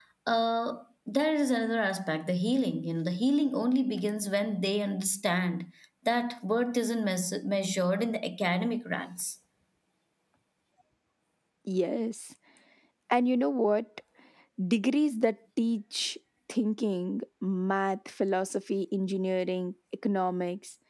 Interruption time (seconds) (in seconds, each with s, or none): none